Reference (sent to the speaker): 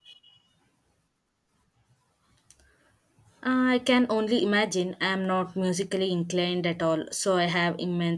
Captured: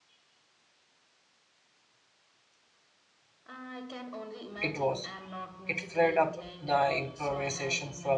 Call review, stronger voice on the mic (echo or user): user